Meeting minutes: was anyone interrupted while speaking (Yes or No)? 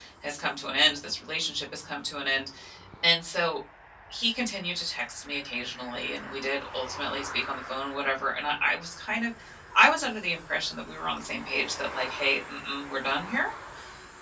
No